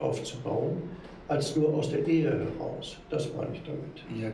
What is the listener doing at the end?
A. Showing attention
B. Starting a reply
B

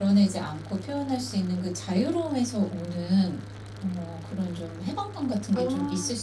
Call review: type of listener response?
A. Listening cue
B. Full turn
A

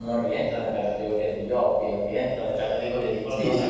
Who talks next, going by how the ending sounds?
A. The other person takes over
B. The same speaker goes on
A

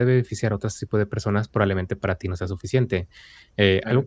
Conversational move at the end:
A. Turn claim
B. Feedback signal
B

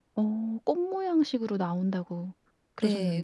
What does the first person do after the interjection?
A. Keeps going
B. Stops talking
B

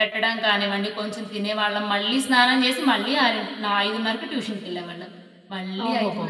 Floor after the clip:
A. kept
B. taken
A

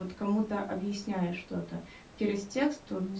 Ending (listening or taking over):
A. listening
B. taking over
A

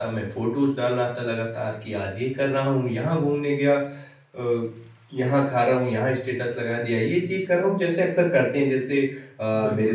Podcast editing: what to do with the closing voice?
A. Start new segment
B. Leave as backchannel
B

